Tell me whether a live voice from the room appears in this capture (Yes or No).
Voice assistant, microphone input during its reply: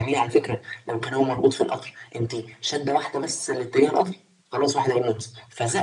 No